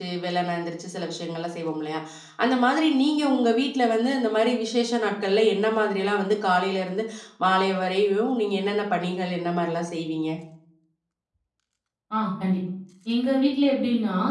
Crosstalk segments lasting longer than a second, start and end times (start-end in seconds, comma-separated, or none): none